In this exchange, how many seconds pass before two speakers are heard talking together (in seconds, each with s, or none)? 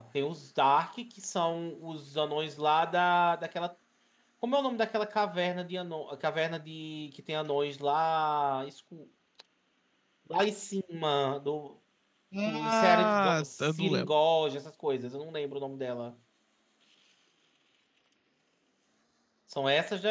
12.6 s